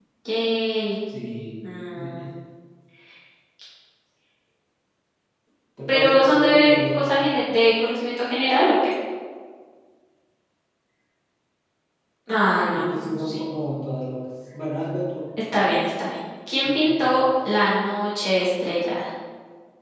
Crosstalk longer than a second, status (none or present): present